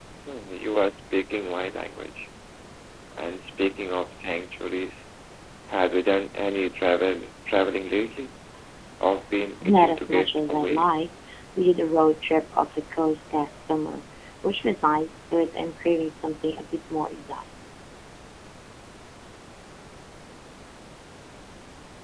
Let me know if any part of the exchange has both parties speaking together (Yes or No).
Yes